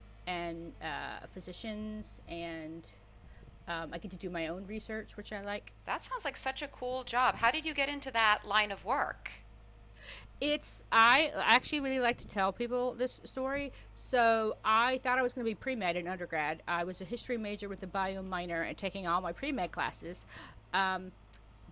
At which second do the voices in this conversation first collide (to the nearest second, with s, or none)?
none